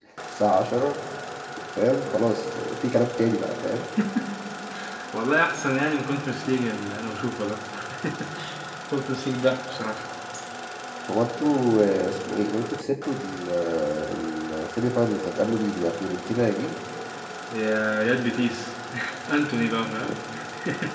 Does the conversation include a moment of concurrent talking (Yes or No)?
No